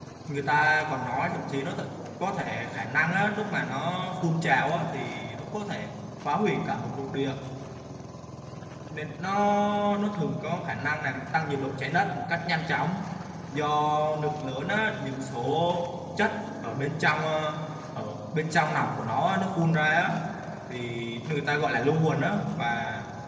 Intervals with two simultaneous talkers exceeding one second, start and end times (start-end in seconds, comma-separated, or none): none